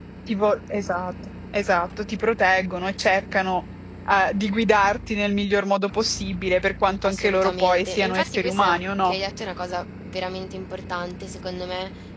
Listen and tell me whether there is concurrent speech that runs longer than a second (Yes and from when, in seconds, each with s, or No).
Yes, from 7.0 s